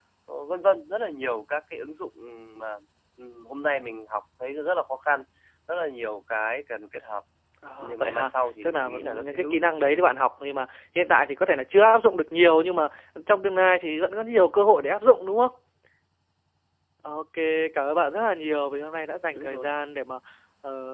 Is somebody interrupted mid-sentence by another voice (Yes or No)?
Yes